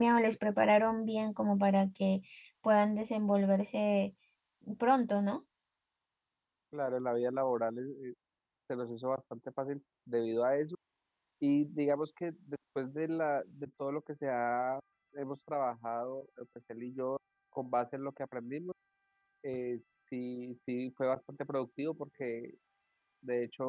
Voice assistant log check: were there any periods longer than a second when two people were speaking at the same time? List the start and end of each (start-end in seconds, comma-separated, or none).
none